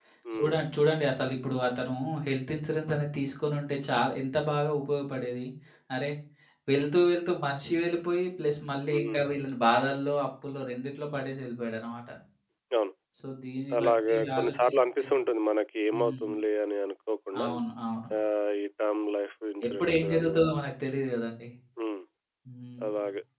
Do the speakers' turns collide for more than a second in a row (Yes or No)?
Yes